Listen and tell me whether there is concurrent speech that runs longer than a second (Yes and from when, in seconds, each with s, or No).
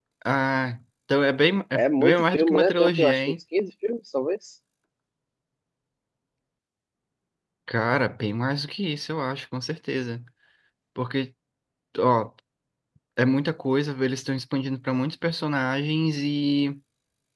Yes, from 1.7 s